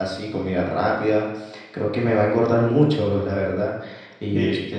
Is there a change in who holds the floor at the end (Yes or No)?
No